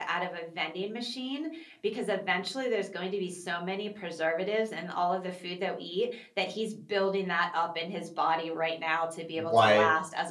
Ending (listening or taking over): listening